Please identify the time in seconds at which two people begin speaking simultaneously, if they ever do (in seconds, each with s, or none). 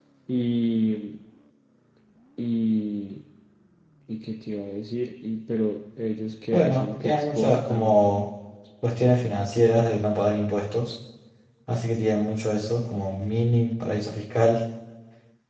6.5 s